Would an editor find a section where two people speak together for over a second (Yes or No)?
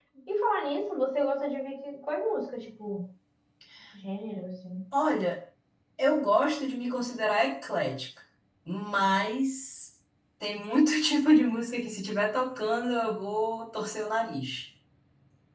No